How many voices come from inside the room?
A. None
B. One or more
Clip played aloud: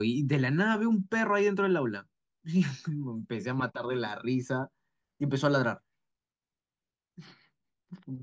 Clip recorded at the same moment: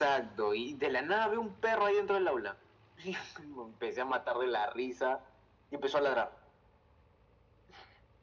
A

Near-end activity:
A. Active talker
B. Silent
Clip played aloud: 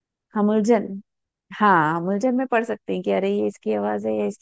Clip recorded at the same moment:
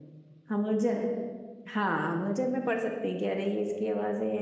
B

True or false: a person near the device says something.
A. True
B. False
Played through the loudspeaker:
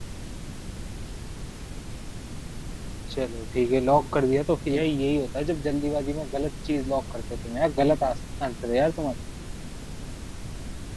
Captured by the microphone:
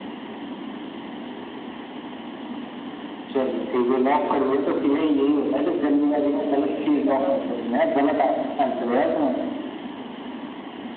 A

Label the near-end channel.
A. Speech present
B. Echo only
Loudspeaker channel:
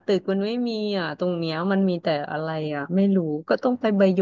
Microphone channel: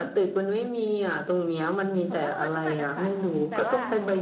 A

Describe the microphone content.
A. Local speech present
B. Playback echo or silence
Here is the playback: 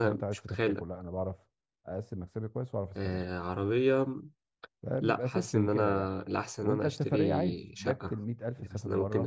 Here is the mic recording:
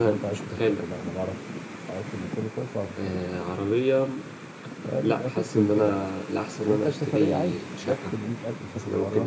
B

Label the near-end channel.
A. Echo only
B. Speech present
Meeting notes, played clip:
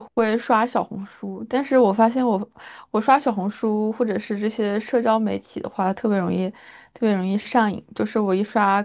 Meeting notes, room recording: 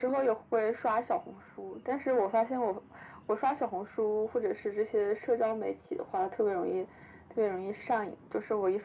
A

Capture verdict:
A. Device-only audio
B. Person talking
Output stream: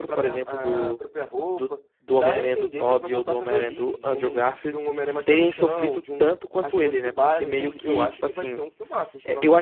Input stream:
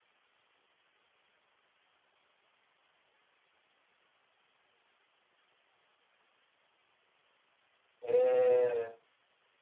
B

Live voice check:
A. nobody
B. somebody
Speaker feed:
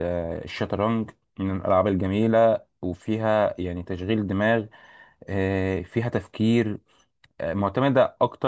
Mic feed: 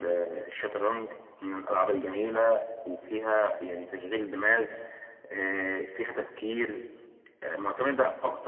A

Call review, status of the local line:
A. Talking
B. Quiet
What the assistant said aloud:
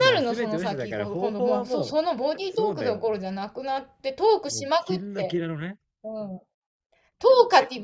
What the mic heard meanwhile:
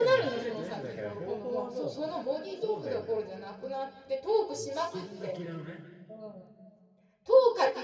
B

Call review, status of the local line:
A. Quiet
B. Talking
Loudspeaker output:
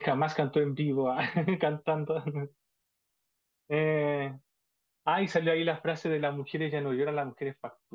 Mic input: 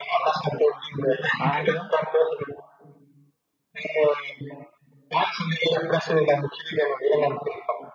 B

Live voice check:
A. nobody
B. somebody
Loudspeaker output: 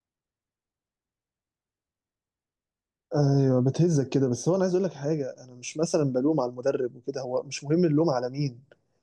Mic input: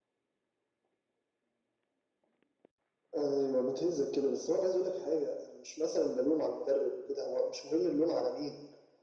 A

